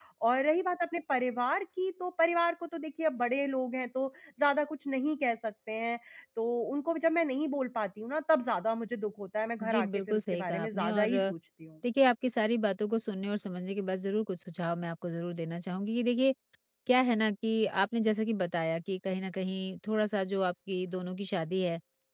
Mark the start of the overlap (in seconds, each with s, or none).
9.6 s